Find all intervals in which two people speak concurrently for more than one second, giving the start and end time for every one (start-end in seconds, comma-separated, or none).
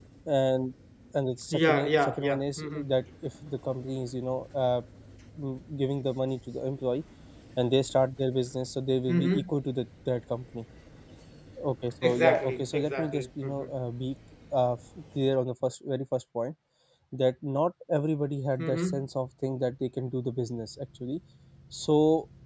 1.5-2.8, 12.0-13.7